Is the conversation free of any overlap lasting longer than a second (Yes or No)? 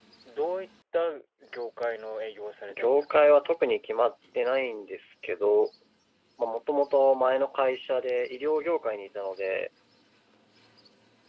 Yes